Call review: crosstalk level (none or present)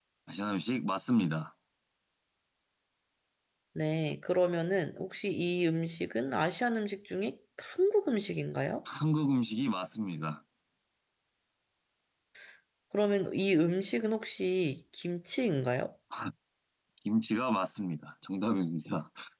none